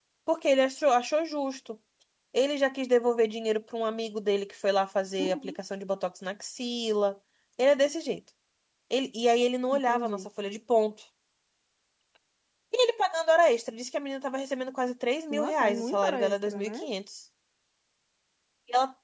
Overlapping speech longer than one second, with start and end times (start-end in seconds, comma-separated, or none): 15.3-16.9